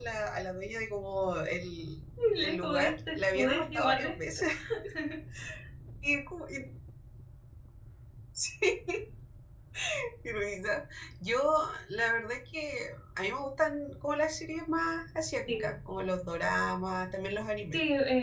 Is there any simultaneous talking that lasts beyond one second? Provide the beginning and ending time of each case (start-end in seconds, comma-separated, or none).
2.4-4.4